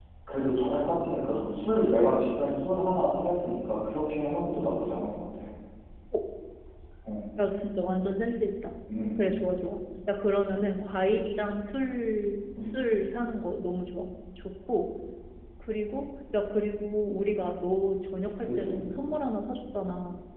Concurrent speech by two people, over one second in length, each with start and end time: none

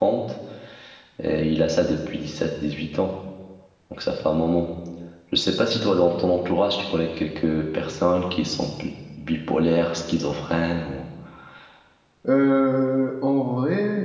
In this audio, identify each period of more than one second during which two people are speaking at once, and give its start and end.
none

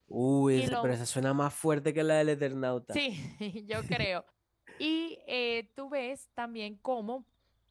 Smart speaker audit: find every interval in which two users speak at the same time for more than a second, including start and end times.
none

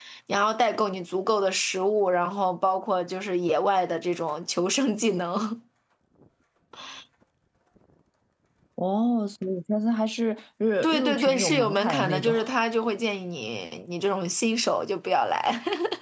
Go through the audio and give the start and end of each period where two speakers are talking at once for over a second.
10.8-12.3

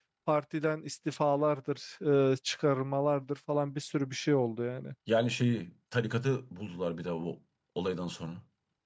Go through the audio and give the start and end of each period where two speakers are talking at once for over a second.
none

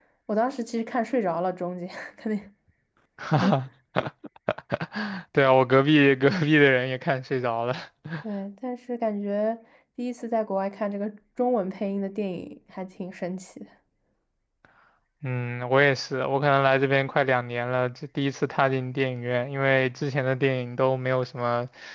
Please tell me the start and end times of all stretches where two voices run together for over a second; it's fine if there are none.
none

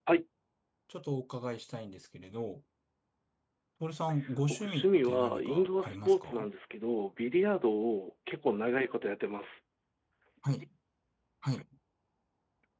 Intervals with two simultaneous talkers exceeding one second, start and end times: 4.5-6.5

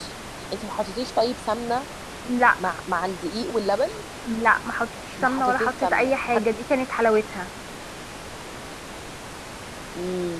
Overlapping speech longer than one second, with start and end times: 5.2-6.4

